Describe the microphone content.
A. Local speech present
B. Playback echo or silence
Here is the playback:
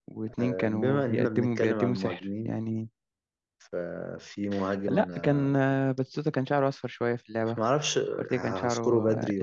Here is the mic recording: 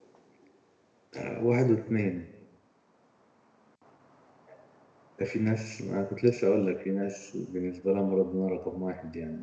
A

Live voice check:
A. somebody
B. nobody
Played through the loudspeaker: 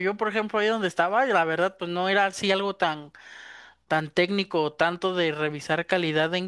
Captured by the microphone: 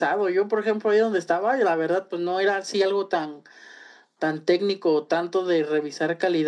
B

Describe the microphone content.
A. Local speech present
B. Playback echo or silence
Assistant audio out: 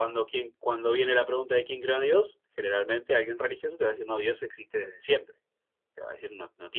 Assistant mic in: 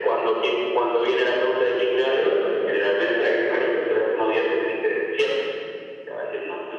B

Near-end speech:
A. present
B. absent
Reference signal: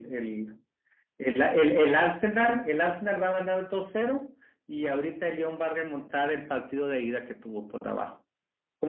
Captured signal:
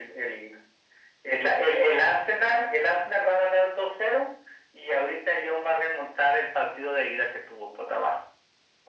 B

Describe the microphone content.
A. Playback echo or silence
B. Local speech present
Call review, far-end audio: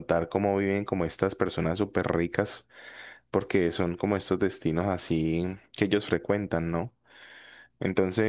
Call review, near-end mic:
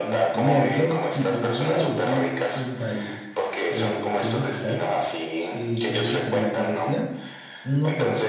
B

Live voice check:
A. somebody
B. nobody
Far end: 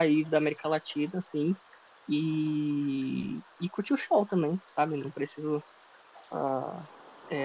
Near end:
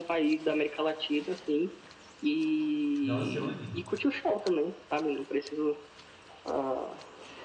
A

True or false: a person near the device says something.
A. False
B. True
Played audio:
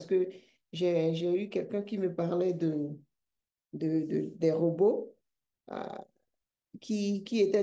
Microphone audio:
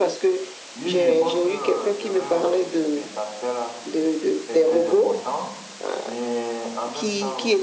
B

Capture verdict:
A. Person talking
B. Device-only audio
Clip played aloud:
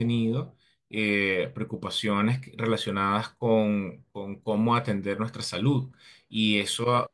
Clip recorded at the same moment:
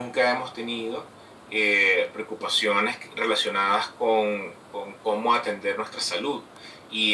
B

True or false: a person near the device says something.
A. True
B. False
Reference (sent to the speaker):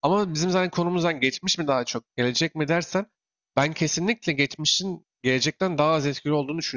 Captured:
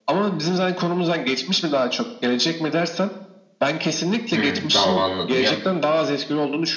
A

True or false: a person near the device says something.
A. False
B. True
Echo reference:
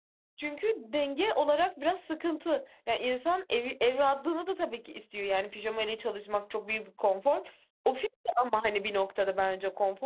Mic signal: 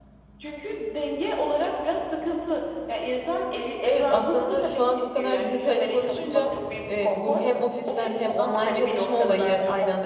B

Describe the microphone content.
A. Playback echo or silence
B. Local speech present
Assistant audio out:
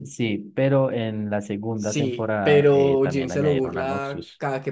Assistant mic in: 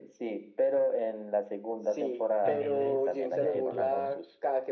B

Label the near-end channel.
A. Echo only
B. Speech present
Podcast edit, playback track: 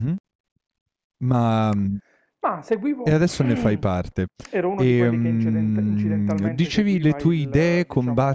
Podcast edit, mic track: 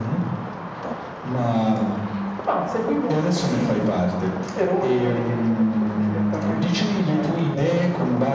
A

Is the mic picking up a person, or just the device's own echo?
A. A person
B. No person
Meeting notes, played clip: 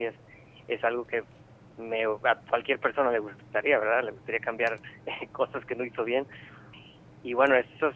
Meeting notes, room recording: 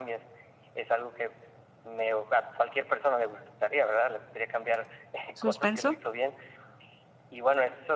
A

